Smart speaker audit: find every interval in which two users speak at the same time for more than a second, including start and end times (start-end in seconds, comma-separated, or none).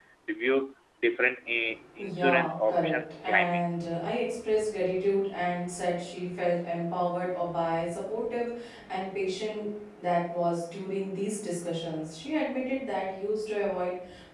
2.0-3.6